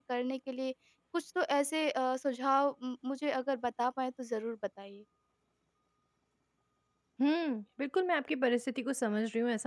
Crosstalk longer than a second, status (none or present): none